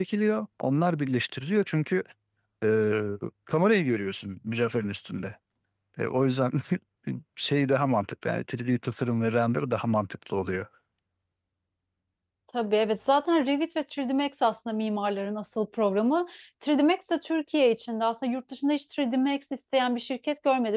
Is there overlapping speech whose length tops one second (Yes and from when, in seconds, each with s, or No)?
No